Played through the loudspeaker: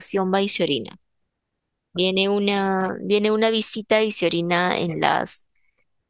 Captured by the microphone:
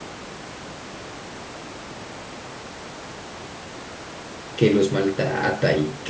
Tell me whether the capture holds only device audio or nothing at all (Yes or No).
No